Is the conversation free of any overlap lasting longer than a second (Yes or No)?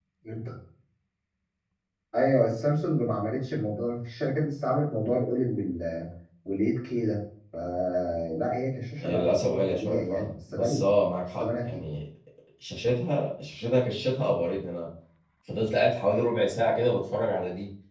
No